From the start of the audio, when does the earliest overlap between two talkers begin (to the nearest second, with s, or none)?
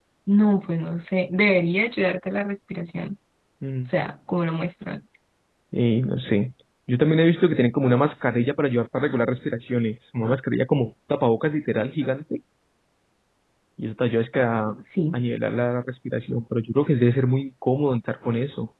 none